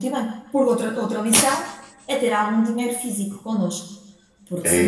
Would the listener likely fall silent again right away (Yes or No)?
No